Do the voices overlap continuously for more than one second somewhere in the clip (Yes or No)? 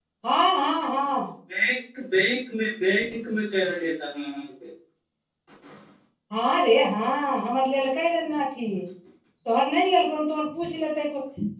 No